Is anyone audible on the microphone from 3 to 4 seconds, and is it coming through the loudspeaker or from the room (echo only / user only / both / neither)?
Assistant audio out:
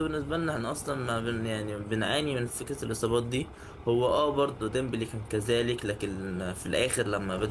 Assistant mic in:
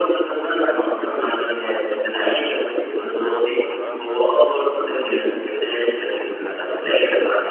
both